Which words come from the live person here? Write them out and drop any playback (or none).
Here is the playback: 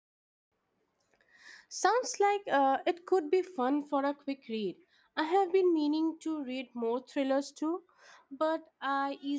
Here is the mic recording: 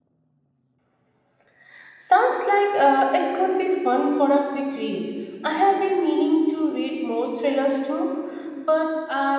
none